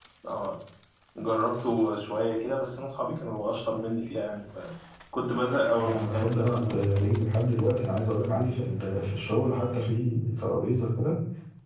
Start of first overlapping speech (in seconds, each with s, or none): 5.8 s